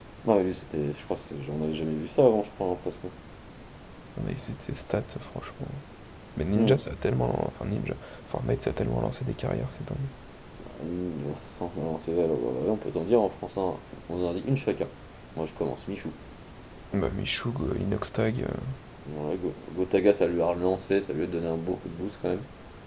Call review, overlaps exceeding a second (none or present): none